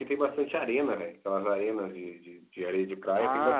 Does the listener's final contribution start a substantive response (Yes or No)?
Yes